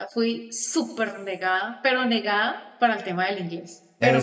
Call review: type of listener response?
listening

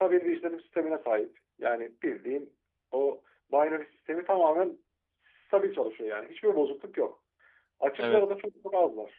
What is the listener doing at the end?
listening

